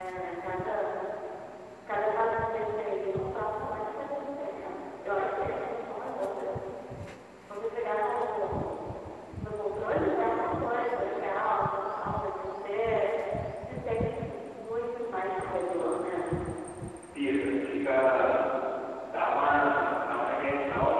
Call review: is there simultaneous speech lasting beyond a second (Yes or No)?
No